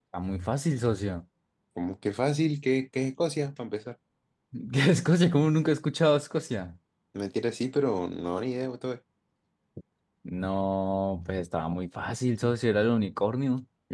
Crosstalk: none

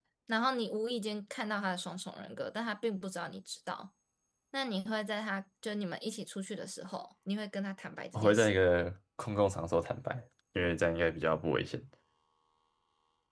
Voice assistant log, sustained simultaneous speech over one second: none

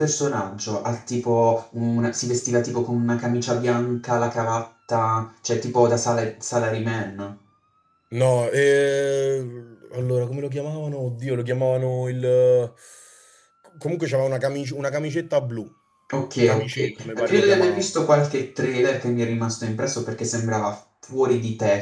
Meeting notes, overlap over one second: present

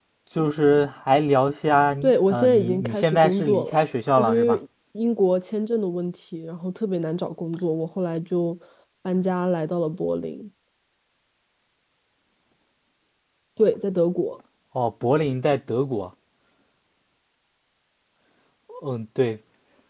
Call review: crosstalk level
present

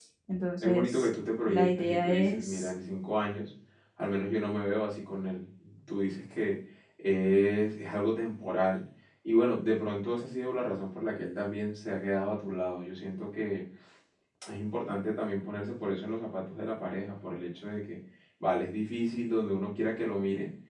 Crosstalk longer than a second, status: present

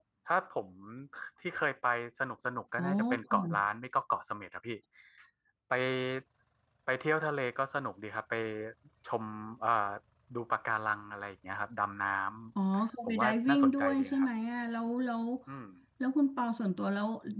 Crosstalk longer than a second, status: present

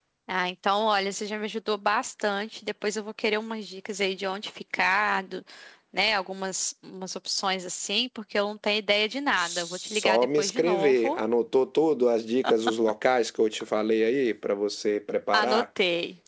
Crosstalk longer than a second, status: present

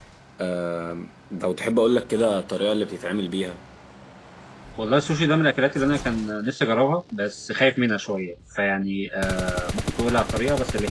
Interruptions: none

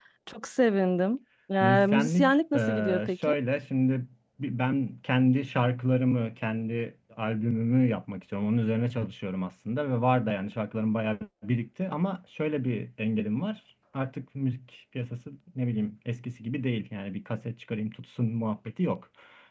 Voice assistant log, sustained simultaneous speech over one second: present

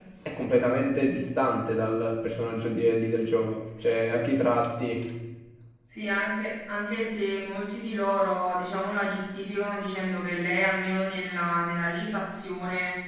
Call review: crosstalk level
none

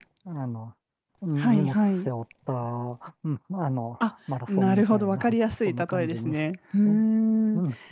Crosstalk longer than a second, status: present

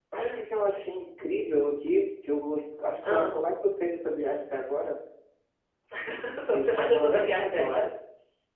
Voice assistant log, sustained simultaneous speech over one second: present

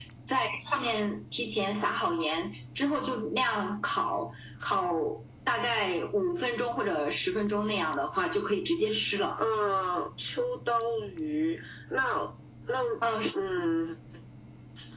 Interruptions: none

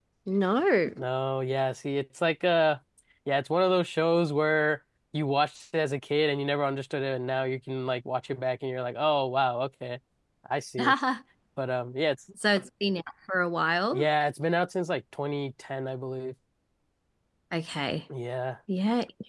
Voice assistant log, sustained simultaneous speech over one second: none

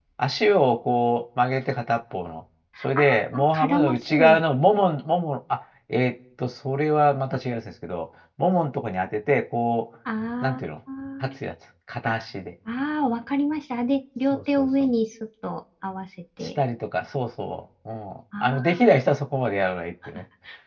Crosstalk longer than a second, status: present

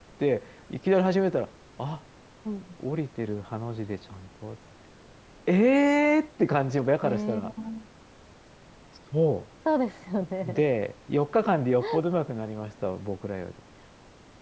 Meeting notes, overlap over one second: none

